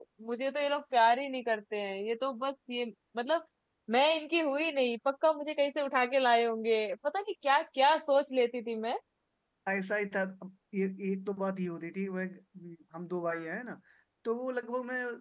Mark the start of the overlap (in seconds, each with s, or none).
none